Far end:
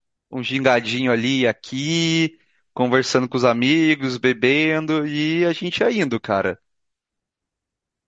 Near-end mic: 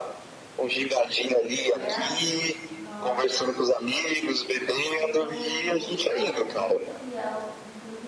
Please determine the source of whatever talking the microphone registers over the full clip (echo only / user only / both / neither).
both